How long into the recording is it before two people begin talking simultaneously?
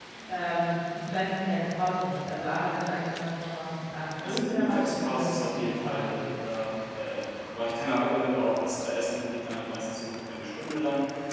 4.2 s

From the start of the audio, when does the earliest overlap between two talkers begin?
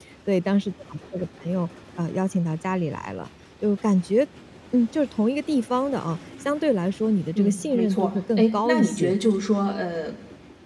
7.3 s

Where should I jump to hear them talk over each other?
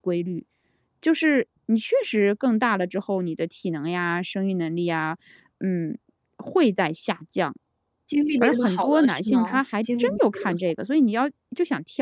8.4 s

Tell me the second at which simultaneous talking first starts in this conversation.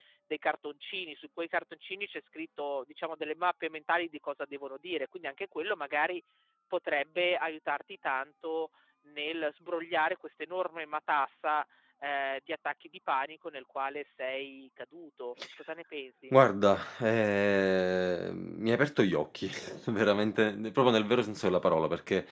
none

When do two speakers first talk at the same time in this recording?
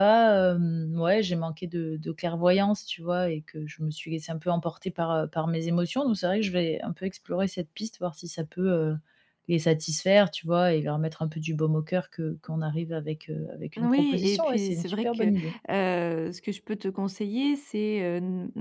13.8 s

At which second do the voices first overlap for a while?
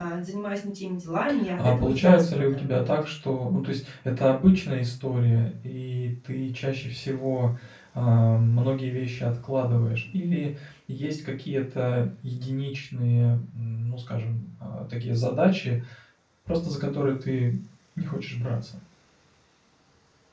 1.6 s

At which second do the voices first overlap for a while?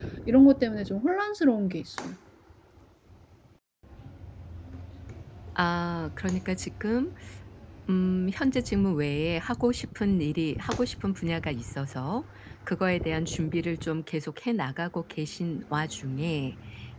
none

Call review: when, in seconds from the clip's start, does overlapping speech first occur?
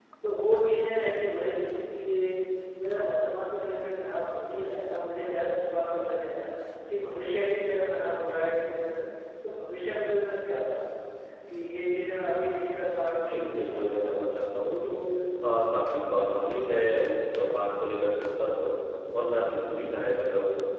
13.2 s

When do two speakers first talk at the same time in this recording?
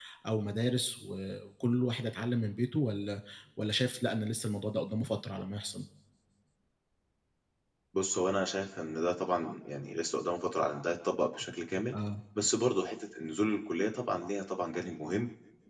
none

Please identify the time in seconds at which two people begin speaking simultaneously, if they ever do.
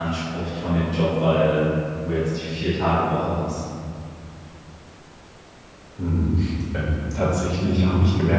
none

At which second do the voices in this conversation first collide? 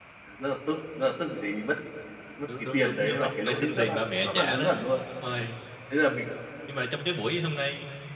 2.7 s

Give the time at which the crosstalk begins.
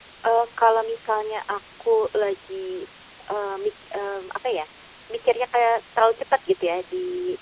none

